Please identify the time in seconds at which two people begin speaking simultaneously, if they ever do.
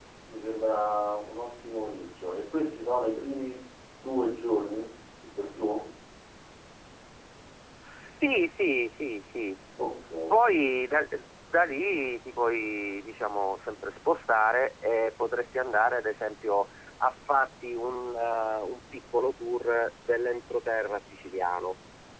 none

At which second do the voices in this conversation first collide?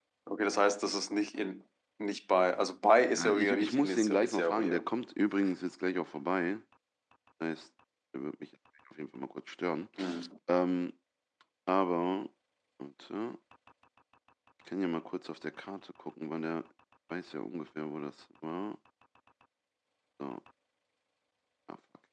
3.1 s

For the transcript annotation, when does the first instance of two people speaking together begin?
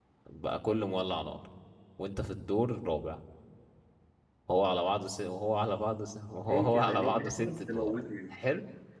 6.5 s

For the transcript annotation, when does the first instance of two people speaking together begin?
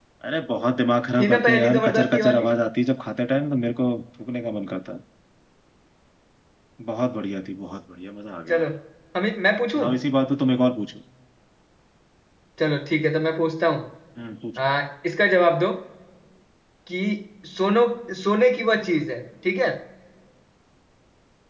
1.2 s

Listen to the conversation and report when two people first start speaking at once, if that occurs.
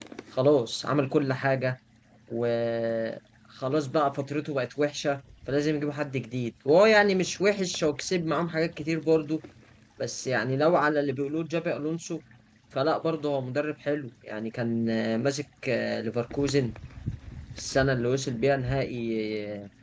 none

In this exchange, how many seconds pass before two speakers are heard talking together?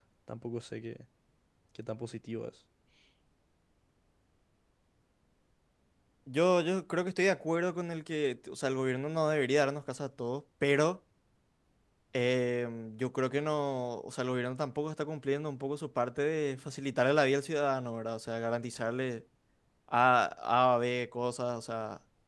none

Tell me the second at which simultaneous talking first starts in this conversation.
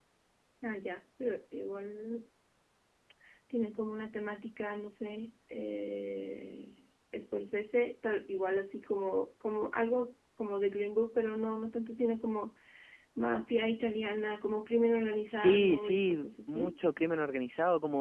15.3 s

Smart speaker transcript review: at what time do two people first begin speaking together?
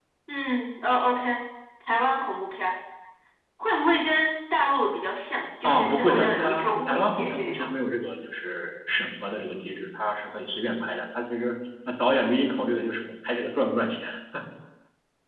5.6 s

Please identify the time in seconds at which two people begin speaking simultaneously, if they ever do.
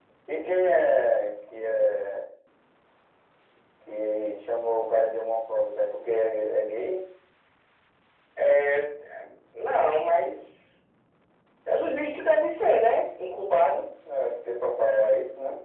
none

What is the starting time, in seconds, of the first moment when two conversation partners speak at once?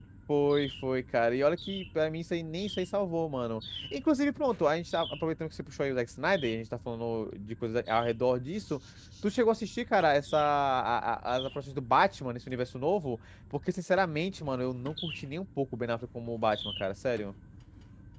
none

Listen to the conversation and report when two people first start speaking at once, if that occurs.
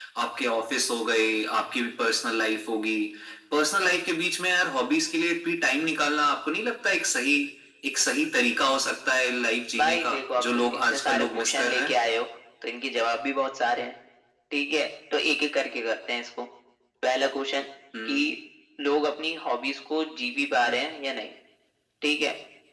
9.7 s

